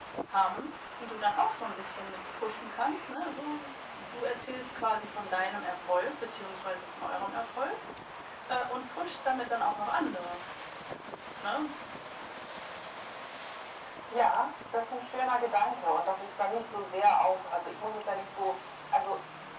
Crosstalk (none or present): none